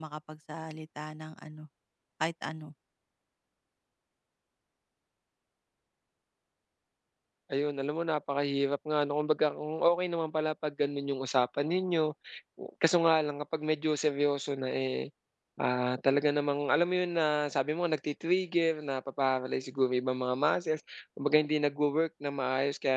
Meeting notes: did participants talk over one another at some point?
No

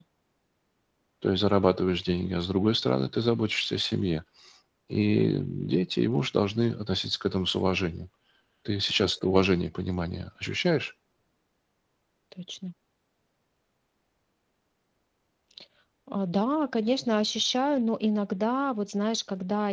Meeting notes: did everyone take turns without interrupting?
Yes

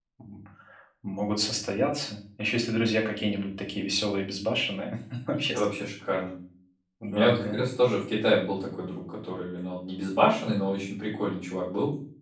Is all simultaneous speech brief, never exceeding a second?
Yes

